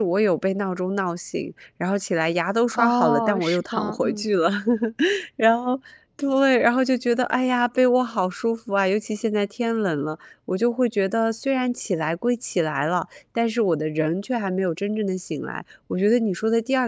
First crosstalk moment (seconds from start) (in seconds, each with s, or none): 2.7 s